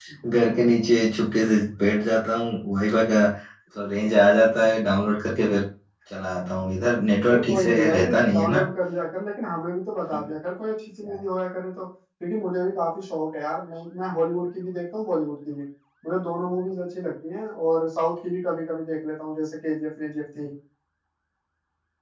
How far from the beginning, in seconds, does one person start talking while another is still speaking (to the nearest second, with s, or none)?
7 s